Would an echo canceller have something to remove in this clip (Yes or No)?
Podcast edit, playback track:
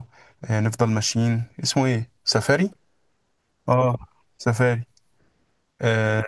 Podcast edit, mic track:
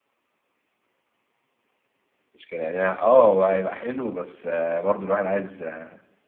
No